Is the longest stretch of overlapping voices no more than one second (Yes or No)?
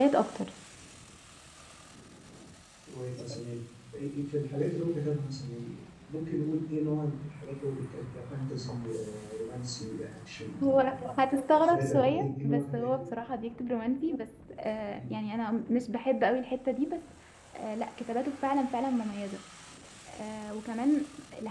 No